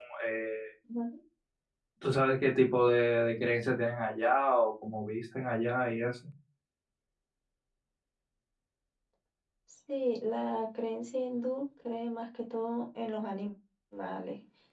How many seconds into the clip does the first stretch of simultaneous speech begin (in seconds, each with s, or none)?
none